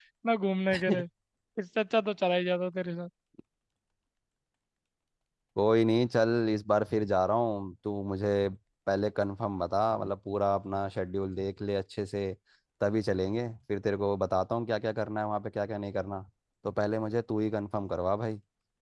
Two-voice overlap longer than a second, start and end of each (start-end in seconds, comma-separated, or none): none